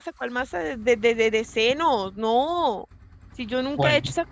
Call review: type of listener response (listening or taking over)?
listening